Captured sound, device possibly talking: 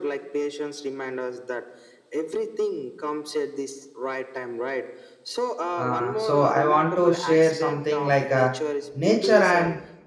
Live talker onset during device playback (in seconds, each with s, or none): 5.8 s